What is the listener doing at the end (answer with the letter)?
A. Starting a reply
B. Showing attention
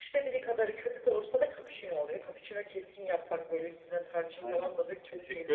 A